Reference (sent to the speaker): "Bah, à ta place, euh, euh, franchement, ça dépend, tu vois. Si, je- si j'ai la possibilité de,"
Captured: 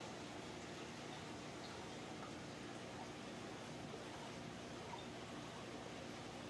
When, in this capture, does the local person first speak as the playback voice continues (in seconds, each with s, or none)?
none